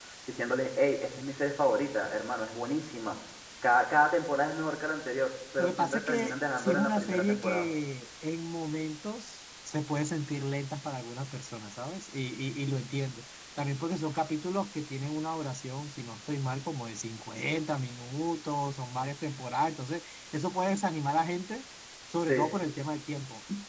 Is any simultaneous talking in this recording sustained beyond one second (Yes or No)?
Yes